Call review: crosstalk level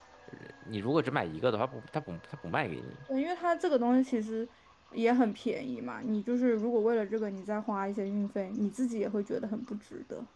none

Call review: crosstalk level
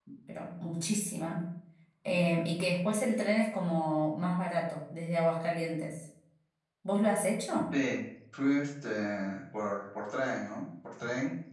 none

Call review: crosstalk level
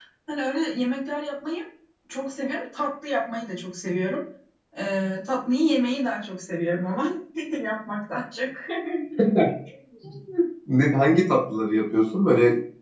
none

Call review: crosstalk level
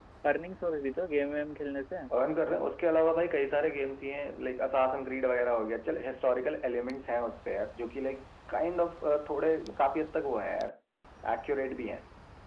none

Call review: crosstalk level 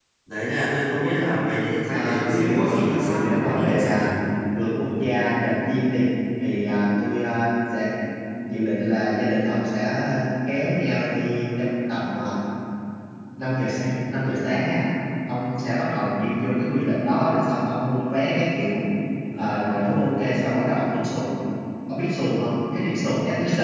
present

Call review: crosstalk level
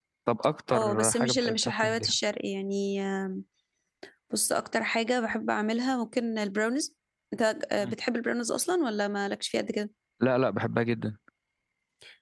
present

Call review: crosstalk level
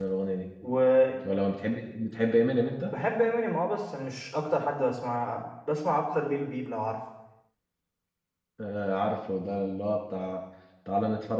none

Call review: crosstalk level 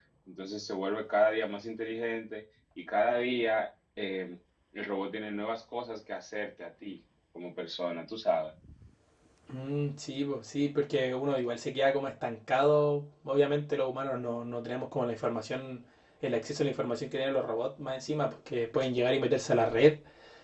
none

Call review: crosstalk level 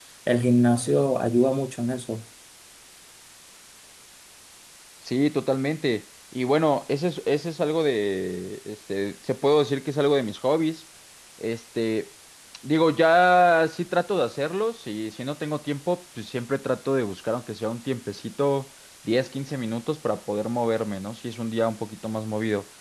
none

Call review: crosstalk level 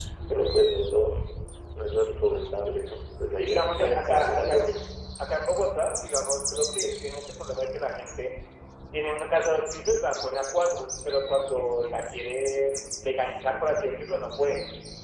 present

